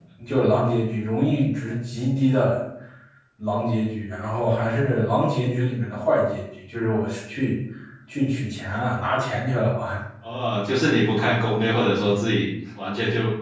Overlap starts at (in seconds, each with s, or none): none